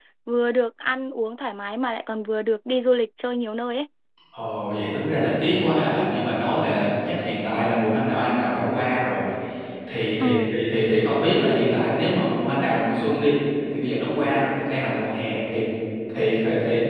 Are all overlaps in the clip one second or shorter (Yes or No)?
Yes